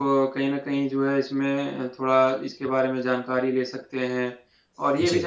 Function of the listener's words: listening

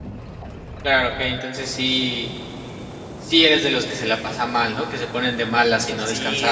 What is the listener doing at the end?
taking over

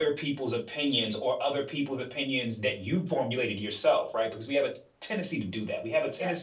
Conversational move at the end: listening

